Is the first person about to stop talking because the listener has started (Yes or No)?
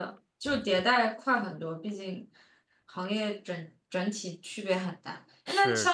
No